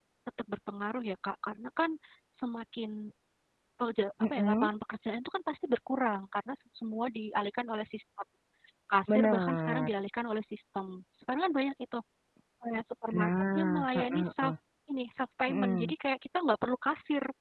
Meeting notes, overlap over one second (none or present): present